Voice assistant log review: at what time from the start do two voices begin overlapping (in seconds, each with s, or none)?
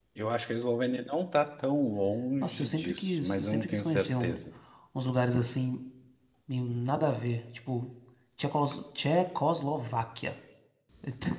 2.4 s